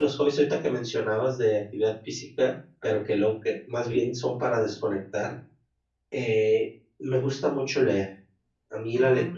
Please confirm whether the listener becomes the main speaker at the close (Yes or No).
No